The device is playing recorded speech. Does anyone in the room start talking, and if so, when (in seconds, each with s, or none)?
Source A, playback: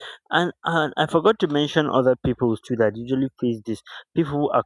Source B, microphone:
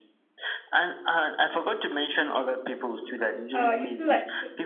3.5 s